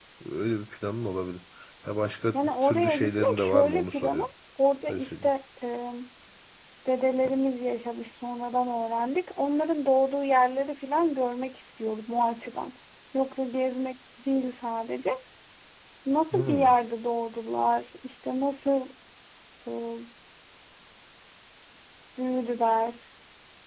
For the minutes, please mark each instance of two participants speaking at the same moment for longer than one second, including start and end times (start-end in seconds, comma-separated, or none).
2.6-4.2